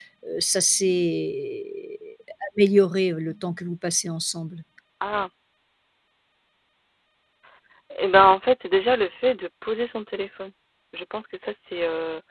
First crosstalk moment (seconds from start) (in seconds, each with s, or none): none